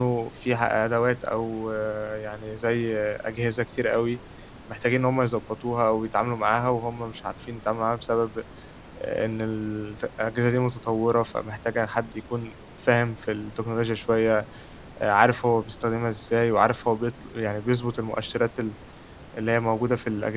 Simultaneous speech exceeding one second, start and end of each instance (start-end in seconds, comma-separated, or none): none